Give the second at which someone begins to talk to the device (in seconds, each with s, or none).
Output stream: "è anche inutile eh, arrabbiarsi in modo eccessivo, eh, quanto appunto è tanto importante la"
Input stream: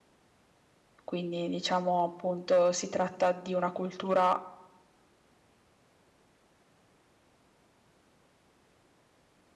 1.0 s